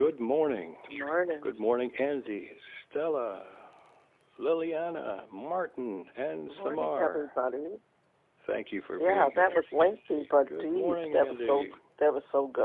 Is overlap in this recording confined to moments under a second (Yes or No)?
No